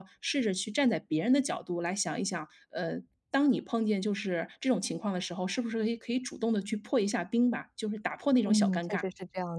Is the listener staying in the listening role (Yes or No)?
No